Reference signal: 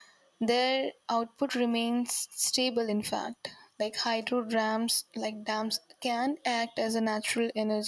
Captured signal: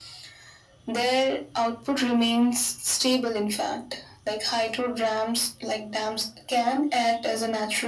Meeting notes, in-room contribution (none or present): none